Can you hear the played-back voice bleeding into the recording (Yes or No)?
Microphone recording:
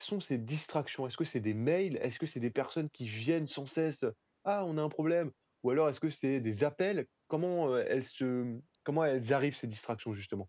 No